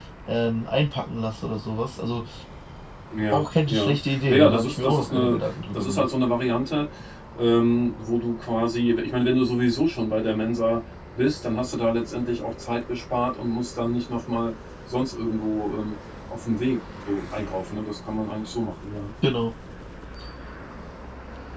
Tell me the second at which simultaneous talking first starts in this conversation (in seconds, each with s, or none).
3.3 s